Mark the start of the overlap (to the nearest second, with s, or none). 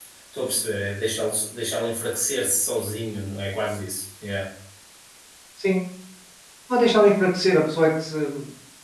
none